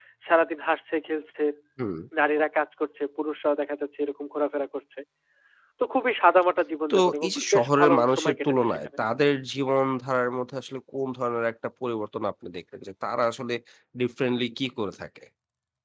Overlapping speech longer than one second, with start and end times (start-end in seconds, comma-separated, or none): 6.9-8.9